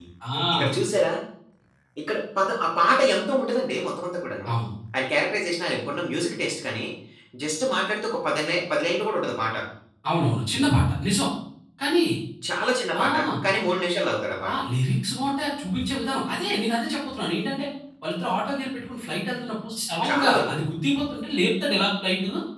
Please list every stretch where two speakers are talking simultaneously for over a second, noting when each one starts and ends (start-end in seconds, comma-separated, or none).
none